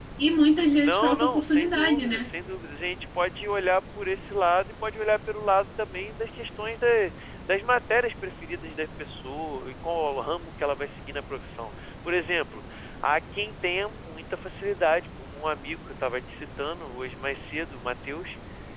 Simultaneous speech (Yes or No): Yes